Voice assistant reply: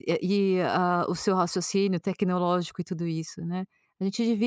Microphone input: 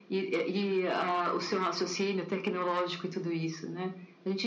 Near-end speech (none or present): none